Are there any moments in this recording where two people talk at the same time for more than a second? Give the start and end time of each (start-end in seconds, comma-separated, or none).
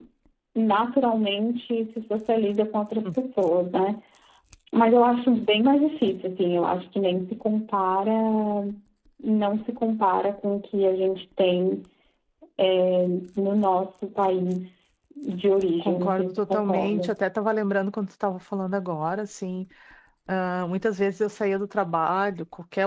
15.8-17.1